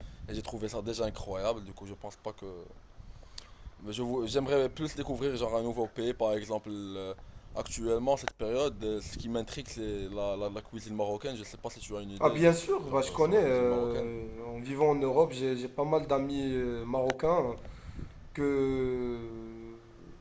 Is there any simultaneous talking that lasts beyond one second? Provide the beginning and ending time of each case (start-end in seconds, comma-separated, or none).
12.2-14.1